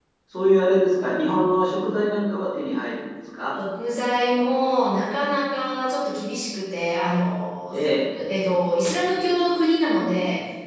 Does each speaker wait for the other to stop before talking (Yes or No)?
Yes